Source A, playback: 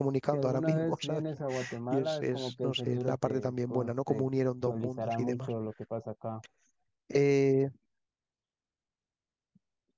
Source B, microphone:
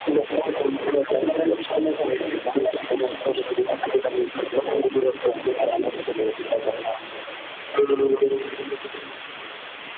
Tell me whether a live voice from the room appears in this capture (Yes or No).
No